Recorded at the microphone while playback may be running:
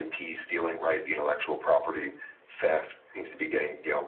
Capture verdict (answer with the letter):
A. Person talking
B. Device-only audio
B